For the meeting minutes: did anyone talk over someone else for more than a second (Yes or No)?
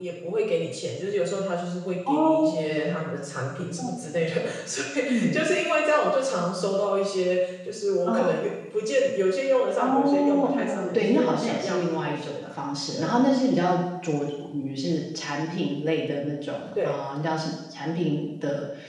Yes